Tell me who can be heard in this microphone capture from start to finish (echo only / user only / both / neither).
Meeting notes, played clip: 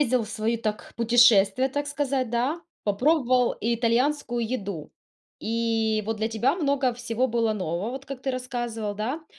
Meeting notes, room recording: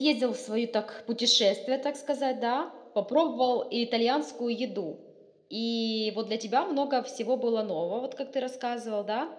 echo only